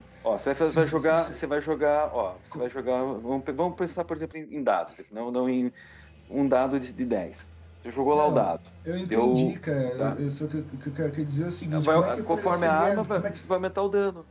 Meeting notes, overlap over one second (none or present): present